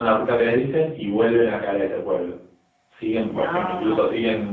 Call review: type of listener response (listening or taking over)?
listening